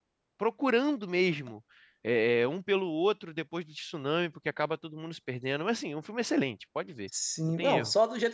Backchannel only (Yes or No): No